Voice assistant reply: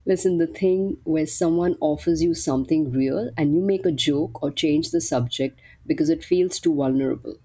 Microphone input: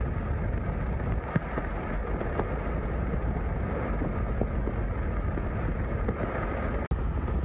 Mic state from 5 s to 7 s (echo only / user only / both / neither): neither